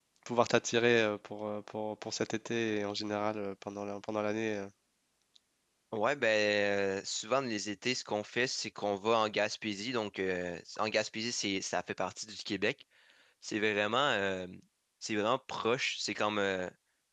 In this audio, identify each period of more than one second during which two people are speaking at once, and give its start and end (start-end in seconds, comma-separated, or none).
none